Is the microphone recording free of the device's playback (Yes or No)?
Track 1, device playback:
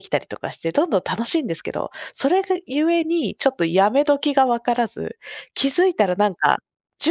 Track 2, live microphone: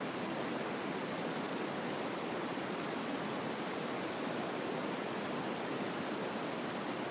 Yes